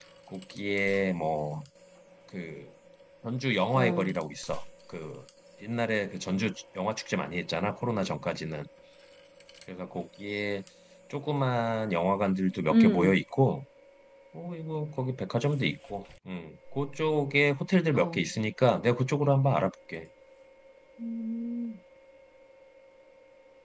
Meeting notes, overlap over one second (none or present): none